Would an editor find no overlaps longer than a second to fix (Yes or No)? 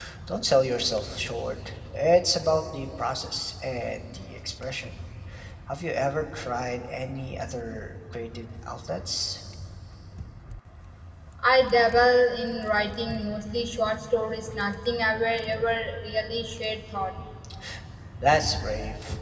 Yes